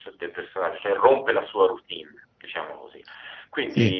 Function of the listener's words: listening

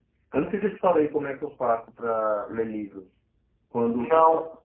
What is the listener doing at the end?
listening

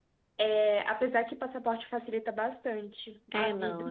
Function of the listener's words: taking over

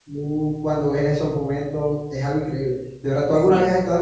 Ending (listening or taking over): listening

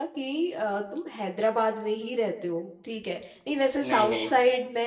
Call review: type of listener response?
listening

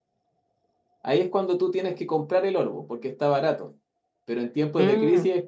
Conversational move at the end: listening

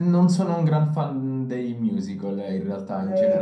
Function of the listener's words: taking over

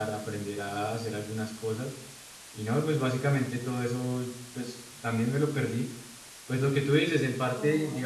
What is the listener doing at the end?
listening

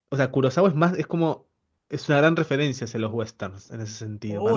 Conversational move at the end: taking over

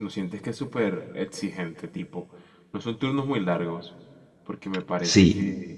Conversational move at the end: taking over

